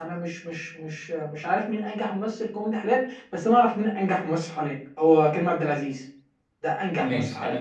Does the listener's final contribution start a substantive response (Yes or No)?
Yes